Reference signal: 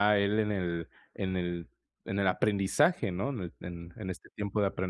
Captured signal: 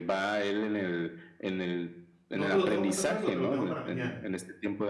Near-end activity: present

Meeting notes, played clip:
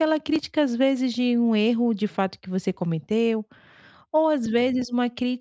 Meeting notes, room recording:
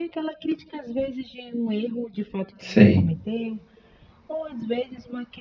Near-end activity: present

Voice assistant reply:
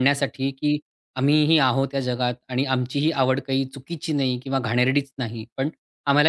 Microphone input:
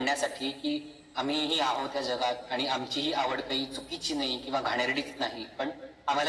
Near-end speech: none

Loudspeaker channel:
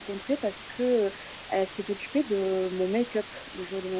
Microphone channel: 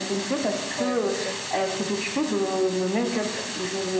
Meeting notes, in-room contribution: present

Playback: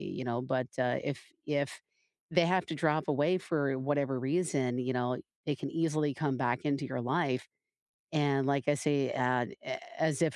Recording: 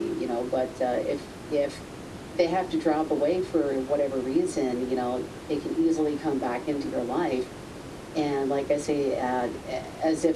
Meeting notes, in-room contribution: none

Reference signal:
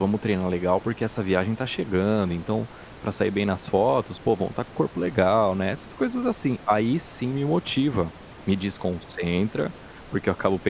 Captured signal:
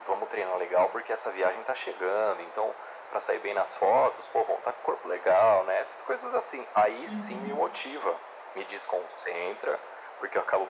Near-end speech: present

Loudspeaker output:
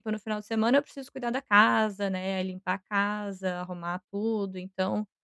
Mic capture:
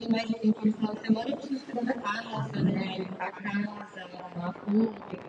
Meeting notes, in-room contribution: present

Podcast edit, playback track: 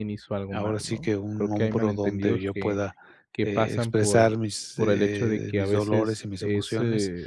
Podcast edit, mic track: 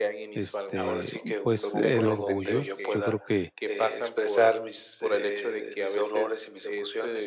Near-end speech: present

